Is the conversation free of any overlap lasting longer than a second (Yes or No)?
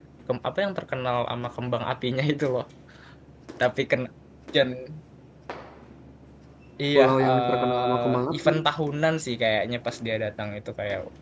No